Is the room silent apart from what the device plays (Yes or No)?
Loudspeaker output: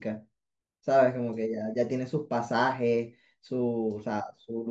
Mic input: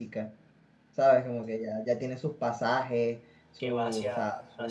No